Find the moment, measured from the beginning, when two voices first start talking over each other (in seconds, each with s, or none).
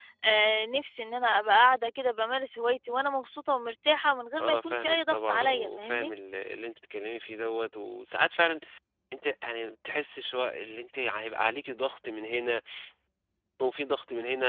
4.4 s